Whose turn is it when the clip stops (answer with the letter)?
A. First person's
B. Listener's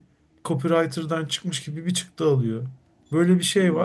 A